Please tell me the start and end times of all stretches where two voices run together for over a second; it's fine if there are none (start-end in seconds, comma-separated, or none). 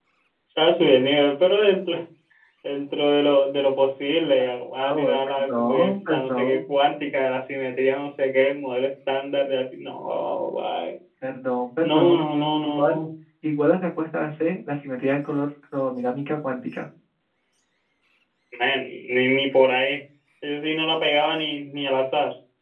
4.8-6.6